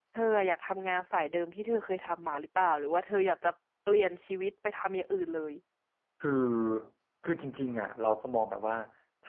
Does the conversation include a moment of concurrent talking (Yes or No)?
No